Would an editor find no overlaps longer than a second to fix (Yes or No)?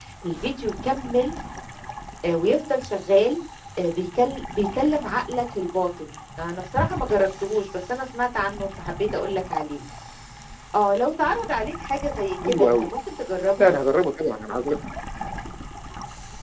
Yes